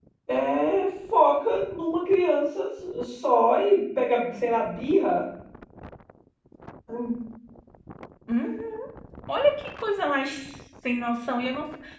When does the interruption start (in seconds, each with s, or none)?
none